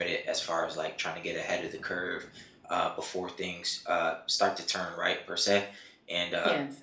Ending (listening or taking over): listening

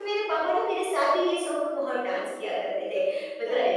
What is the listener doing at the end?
listening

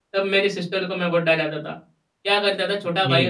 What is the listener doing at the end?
listening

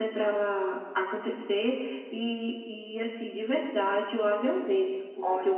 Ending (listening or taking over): listening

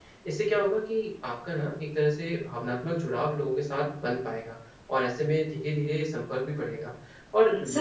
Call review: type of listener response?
listening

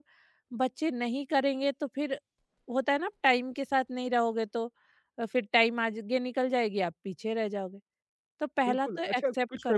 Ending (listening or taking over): taking over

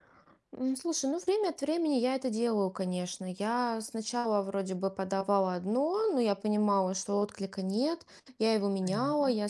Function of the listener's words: listening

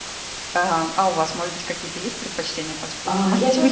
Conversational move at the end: taking over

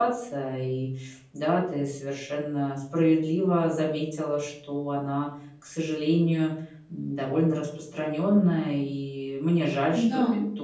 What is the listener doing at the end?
listening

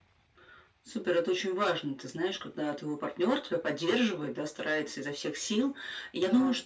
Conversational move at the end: listening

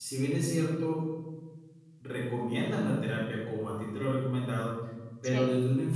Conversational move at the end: listening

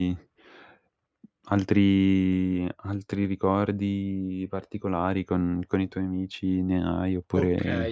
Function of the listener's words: taking over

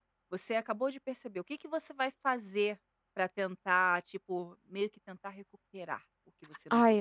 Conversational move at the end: taking over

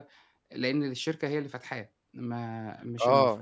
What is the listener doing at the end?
taking over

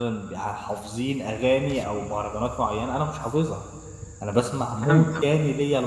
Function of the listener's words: listening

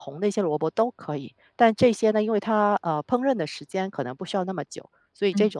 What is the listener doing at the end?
listening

